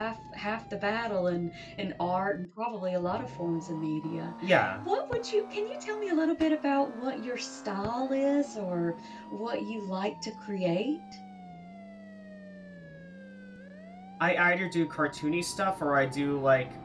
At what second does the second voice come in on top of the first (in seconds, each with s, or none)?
none